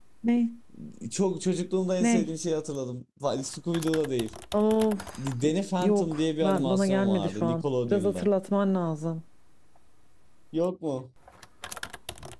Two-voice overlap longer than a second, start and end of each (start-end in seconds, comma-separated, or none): 5.8-8.3